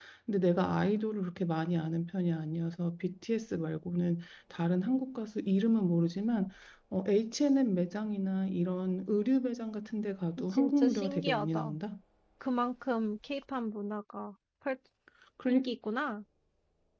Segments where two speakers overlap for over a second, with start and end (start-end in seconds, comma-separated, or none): 10.5-11.8